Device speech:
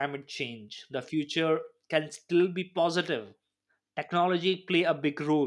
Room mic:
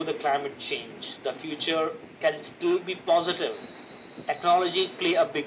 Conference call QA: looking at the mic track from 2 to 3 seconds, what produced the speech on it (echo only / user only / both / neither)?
echo only